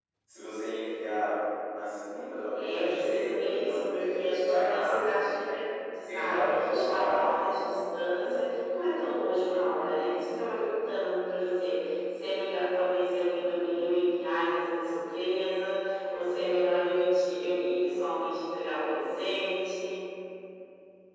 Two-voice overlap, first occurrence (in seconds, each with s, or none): 2.5 s